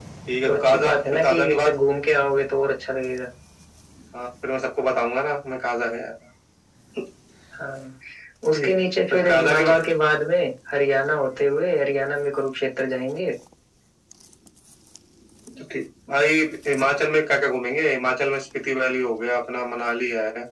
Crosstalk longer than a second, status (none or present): present